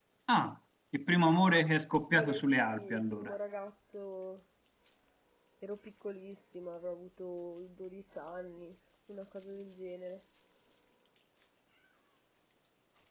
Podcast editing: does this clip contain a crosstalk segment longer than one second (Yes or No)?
Yes